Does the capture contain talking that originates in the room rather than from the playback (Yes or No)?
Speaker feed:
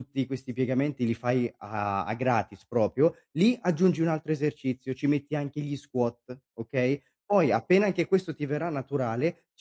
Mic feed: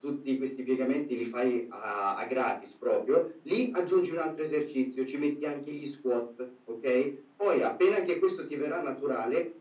No